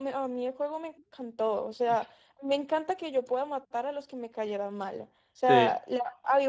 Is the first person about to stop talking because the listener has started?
No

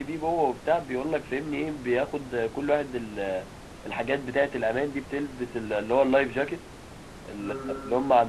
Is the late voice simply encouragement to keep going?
Yes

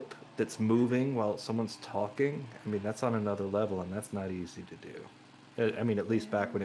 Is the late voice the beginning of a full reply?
No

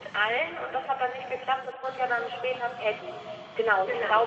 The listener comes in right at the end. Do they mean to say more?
No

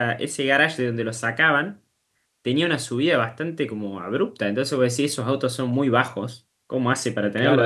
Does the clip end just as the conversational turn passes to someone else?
Yes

